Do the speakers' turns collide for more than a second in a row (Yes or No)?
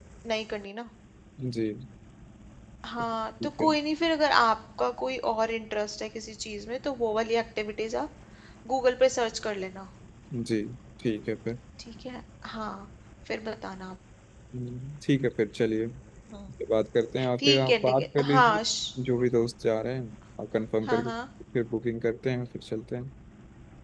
Yes